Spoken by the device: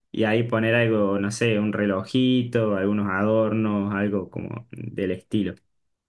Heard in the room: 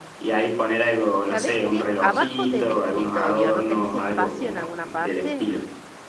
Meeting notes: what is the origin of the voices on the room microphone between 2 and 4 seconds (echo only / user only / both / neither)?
both